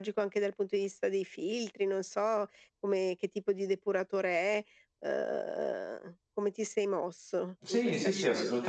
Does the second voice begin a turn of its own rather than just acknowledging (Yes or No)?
Yes